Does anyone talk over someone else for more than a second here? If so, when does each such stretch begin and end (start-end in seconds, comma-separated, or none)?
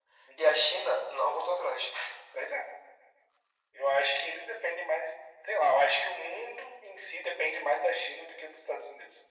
none